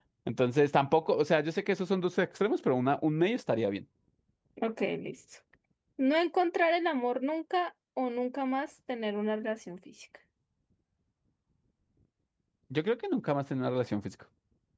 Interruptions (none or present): none